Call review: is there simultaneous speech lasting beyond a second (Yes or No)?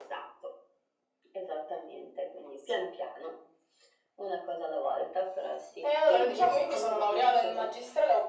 Yes